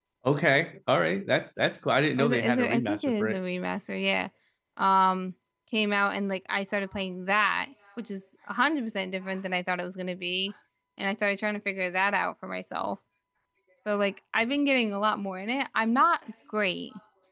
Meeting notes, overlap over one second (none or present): present